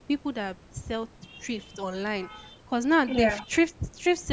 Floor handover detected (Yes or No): No